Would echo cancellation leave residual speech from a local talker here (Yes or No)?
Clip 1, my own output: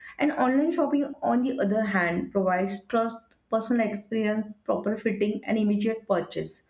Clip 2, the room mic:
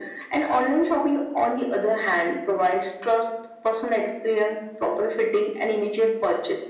No